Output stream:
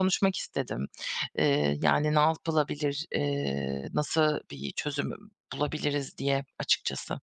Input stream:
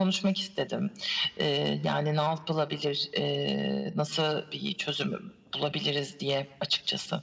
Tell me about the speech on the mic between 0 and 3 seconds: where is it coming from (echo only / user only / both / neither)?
echo only